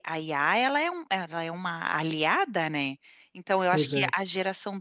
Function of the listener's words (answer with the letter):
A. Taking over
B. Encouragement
B